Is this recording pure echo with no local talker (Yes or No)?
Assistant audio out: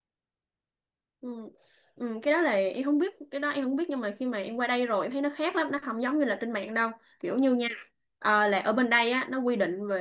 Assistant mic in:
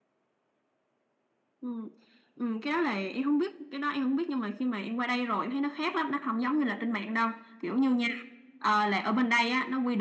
Yes